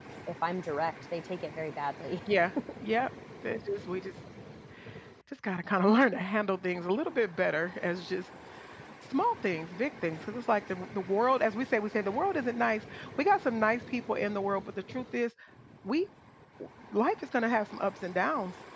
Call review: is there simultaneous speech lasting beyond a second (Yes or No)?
No